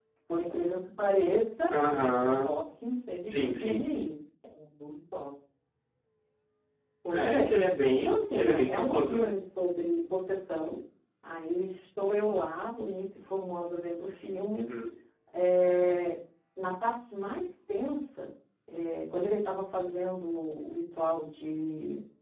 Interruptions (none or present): present